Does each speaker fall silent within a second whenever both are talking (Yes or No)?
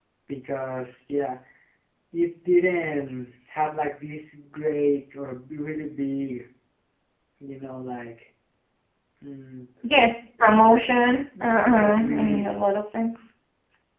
No